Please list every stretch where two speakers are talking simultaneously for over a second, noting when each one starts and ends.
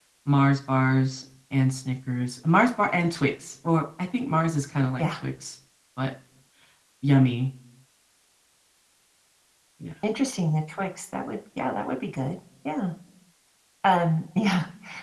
none

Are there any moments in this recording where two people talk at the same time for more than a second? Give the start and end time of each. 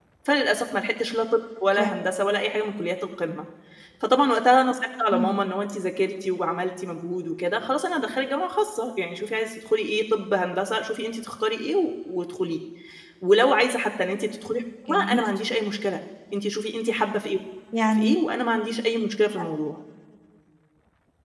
none

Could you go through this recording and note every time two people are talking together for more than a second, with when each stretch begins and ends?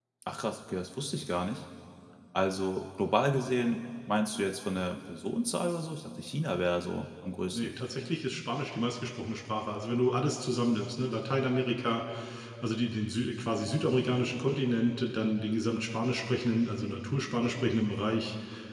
none

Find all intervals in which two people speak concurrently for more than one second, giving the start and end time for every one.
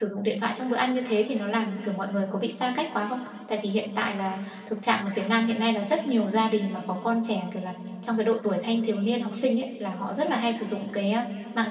none

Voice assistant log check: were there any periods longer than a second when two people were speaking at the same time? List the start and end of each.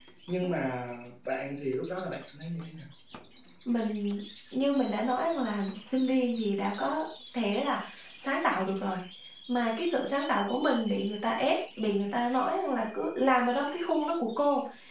none

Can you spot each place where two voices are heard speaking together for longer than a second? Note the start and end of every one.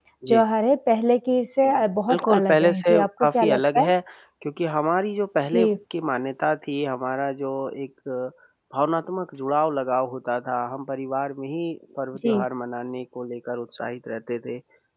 2.1-3.9

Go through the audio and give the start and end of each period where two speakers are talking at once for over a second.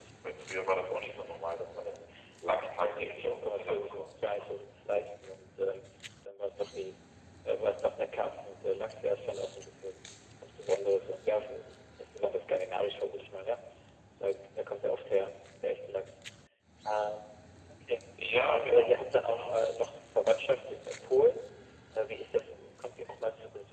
2.7-4.5

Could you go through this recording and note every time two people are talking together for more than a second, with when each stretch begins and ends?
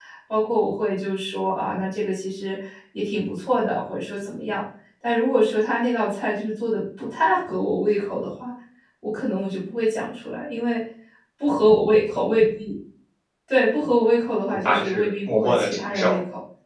14.6-16.2

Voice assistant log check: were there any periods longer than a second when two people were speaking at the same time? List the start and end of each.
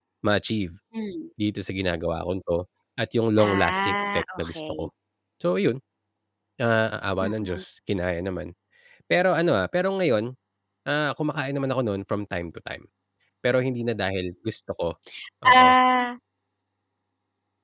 3.4-4.8

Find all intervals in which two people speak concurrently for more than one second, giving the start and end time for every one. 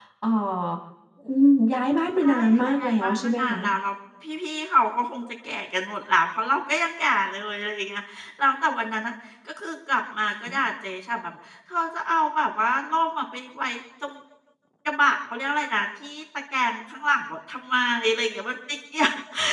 2.2-3.6

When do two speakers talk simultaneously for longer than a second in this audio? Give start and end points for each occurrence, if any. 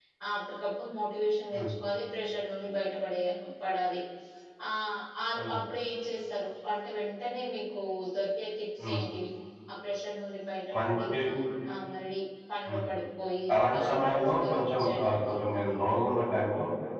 13.8-15.2

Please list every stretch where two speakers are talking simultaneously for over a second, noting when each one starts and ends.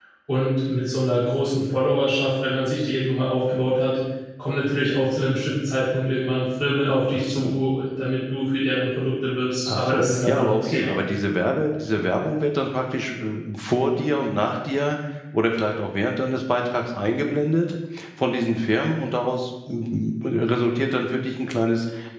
9.7-10.9

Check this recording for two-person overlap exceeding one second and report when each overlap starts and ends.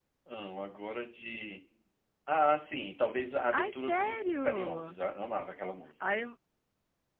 3.5-5.0

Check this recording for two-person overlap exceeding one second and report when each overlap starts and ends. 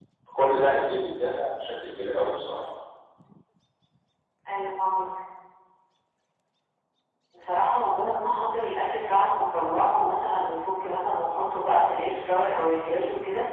none

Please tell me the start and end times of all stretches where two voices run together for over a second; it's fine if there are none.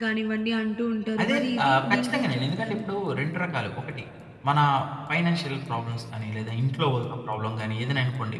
1.2-2.9

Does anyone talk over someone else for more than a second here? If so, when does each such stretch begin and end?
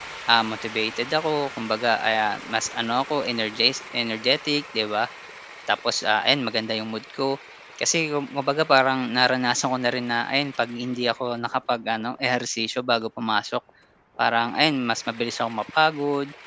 none

